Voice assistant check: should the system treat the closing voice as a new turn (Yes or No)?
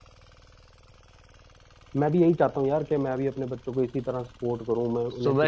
Yes